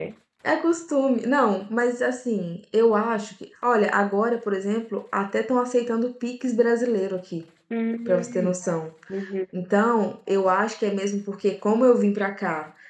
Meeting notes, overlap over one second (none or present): none